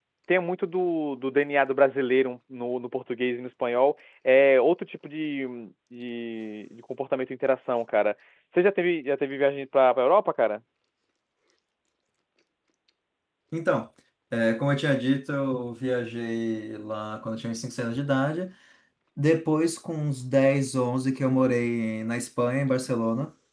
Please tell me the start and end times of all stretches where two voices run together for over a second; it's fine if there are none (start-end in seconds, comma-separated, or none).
none